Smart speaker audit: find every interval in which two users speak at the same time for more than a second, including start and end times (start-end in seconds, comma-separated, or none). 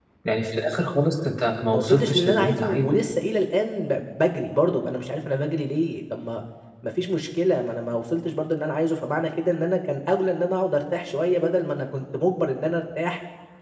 1.7-3.0